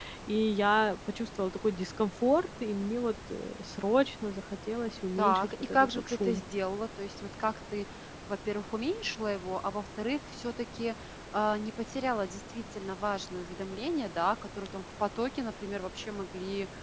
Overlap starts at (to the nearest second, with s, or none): 5 s